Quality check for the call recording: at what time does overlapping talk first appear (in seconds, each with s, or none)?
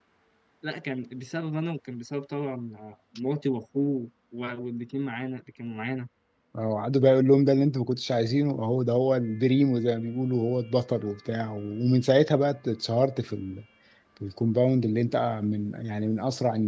none